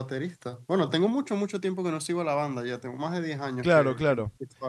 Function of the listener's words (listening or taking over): taking over